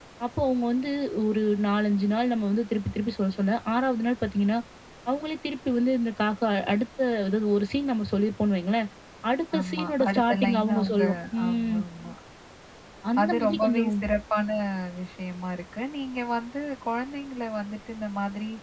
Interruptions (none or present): present